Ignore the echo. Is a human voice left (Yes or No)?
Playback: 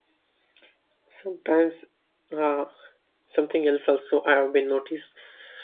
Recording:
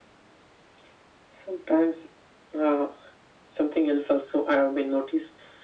No